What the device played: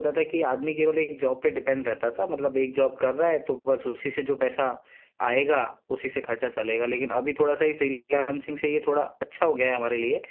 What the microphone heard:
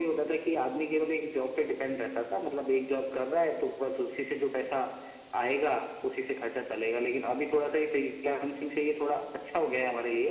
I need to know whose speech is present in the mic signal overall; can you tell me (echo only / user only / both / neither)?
echo only